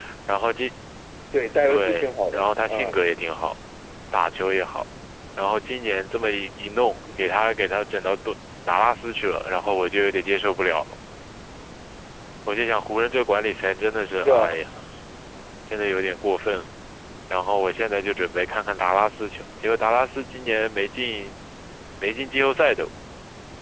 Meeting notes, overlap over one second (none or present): present